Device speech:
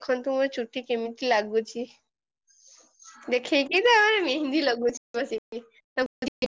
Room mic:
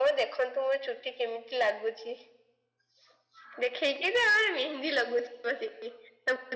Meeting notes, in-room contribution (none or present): none